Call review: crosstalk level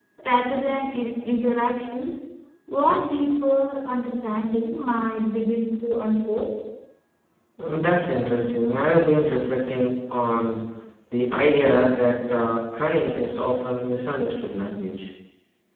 none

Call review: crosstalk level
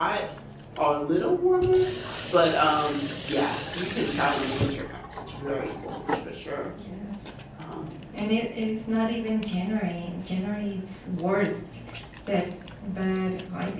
none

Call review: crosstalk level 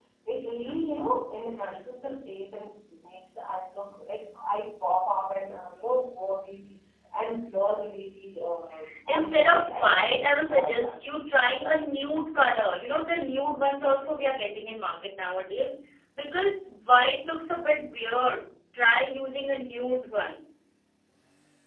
present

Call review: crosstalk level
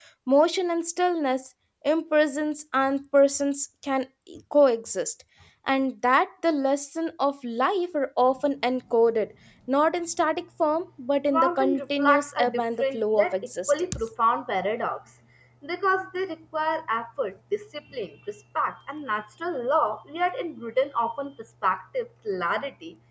present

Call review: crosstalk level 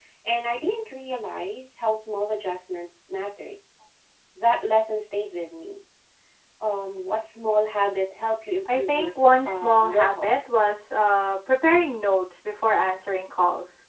present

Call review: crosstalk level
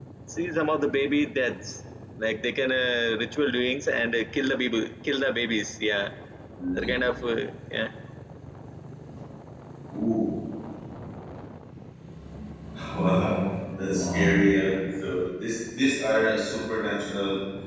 none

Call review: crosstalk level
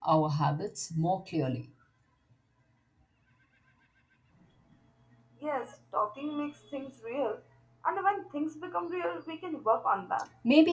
none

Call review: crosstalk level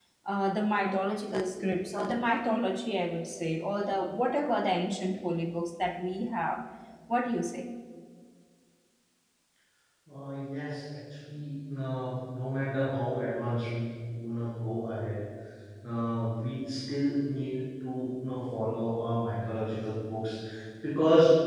none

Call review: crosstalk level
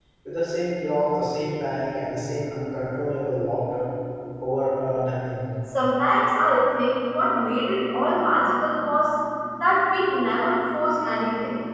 none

